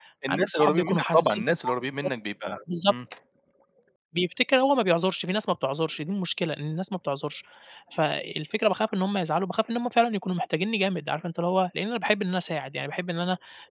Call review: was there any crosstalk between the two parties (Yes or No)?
Yes